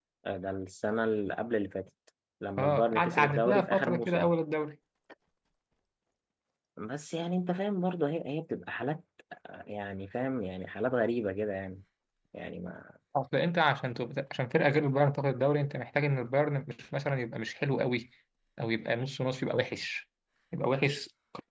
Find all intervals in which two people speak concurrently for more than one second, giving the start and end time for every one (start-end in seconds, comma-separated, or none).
2.6-4.3